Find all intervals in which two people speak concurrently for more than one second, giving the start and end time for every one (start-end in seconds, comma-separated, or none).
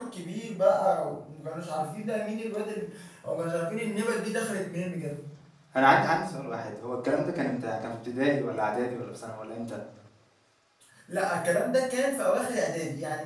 none